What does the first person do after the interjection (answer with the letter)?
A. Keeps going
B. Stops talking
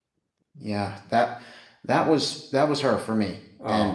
A